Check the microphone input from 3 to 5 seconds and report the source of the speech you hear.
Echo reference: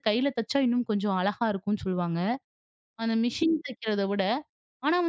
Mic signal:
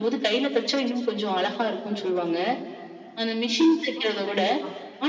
both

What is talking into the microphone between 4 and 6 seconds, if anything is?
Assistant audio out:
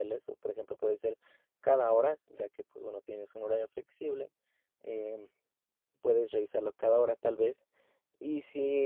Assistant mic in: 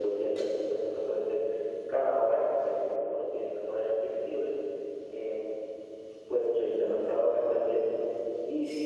echo only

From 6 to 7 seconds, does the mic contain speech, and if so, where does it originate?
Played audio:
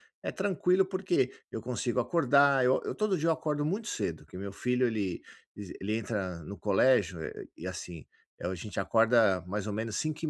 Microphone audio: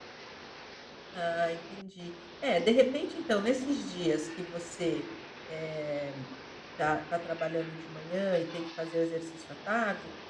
user only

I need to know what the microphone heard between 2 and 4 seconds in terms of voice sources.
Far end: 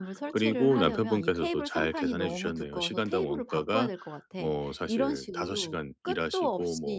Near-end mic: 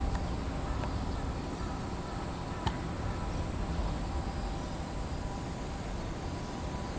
neither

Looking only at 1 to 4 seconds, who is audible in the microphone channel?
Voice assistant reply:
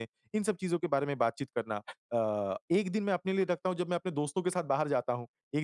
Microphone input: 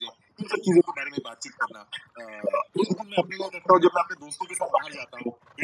echo only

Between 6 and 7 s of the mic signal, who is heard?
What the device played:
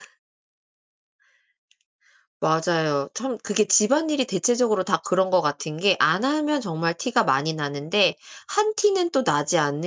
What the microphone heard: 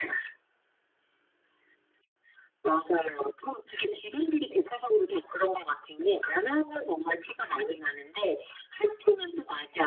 echo only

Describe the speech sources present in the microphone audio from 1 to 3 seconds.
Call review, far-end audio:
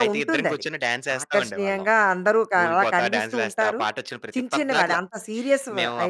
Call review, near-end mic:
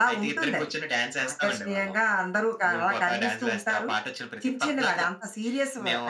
echo only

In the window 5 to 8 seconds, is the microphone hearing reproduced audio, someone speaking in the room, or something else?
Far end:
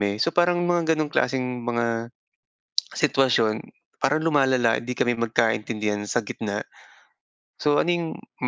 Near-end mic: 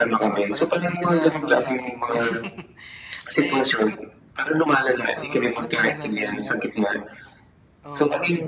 both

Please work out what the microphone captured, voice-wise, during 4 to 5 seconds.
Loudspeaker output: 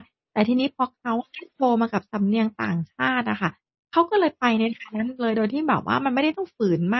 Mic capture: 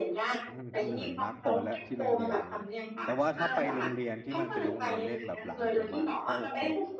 both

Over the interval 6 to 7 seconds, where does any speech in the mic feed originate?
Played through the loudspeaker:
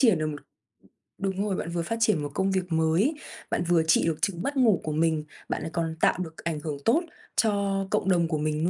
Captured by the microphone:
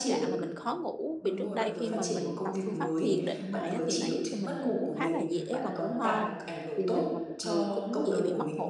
both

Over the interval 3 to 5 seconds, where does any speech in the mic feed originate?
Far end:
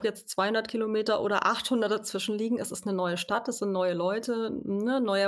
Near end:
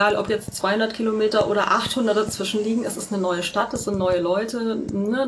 echo only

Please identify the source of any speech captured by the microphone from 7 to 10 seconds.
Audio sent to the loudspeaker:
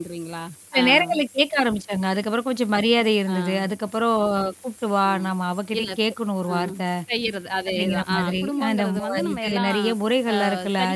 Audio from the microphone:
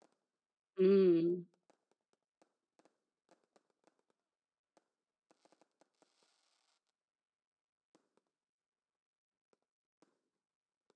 neither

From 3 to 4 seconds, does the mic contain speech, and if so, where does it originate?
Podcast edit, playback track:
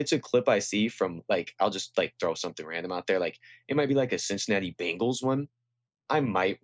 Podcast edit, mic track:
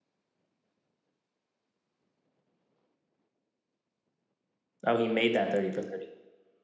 neither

